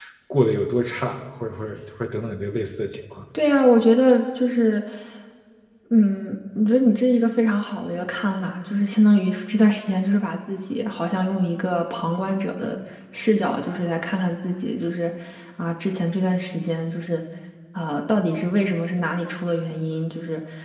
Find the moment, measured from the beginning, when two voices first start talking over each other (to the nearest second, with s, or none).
none